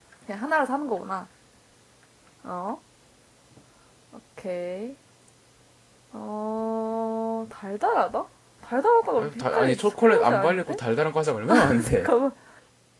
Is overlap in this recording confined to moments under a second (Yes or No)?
No